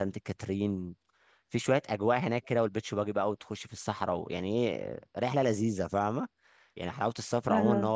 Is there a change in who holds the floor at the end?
No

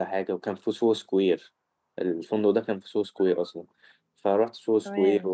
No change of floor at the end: Yes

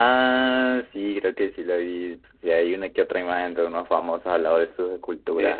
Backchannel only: No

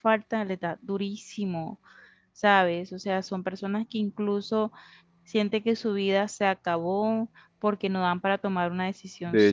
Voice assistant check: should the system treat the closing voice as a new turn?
Yes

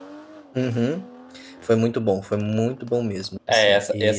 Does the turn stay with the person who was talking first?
No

